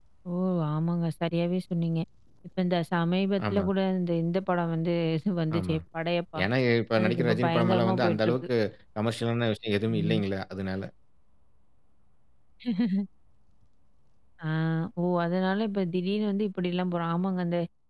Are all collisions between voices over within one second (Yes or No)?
No